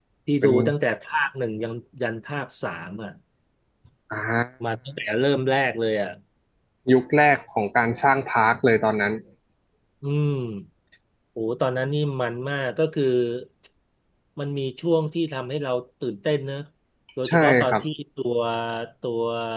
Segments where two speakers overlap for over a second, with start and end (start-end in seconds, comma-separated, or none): none